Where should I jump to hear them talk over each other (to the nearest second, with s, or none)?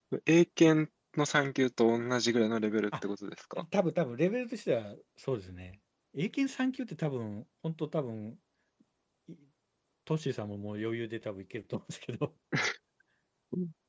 none